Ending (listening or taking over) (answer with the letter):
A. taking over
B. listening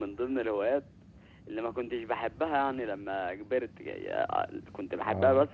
B